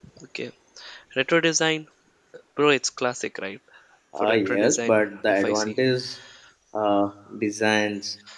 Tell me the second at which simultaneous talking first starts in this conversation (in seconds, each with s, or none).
4.2 s